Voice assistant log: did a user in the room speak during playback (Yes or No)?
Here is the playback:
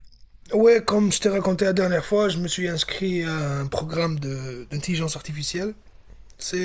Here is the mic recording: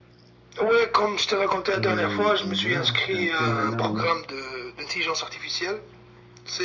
Yes